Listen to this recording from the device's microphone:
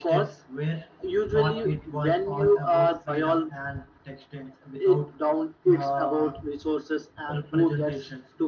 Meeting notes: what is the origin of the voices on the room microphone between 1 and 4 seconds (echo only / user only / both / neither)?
both